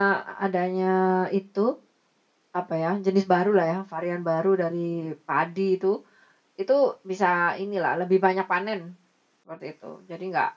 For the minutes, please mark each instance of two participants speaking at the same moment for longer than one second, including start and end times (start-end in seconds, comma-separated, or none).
none